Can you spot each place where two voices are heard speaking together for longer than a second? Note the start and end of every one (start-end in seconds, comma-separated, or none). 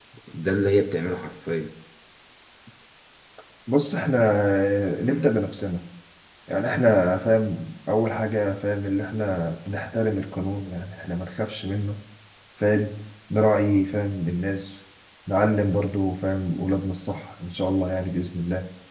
none